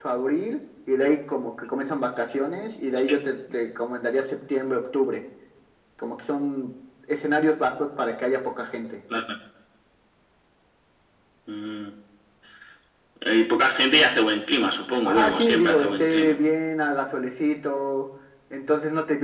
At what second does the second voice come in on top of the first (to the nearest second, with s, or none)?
15 s